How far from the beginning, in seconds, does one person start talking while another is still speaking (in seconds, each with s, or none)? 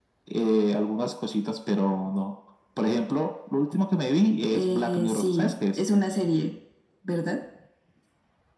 4.5 s